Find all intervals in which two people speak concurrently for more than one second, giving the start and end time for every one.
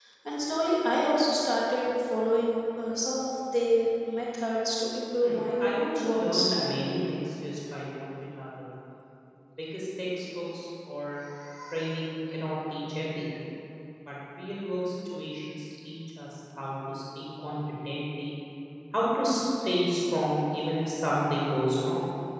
5.2-6.8

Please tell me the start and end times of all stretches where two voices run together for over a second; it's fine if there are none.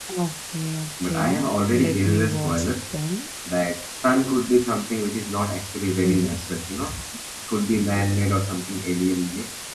1.0-2.7

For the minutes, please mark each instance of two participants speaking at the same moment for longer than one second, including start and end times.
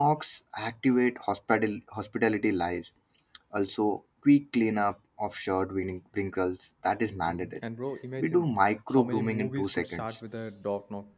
8.9-10.2

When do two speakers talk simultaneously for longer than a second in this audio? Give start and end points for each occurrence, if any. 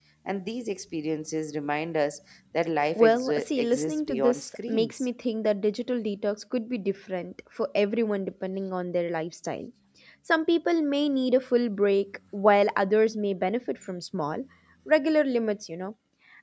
3.0-5.0

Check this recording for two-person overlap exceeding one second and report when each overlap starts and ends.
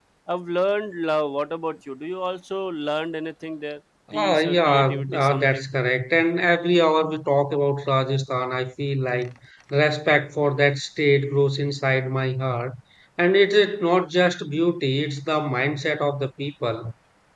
4.1-5.6

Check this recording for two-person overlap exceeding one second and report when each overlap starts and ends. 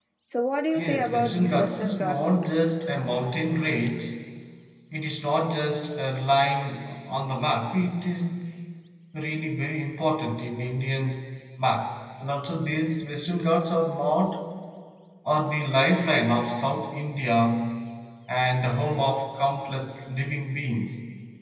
0.8-2.4

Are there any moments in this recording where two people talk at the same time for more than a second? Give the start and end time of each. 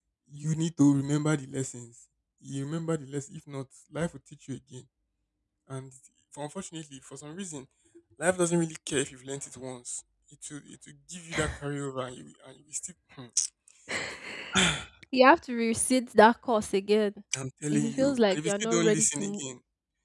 17.7-19.4

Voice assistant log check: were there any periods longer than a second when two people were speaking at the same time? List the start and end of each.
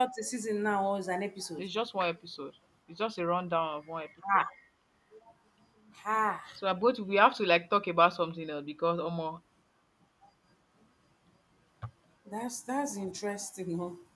none

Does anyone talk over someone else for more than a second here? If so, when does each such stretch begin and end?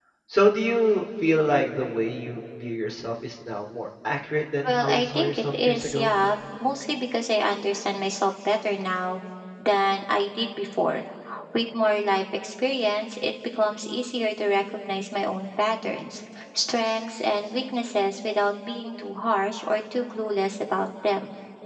4.7-6.1

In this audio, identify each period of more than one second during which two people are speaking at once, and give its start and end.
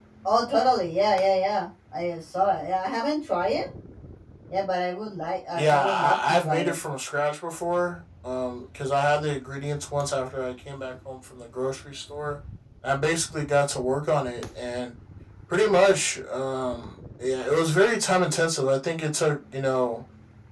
5.5-6.8

